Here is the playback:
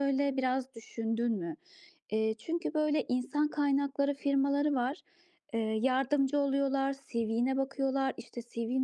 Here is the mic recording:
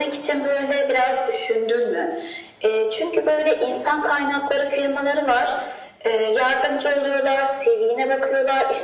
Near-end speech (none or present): none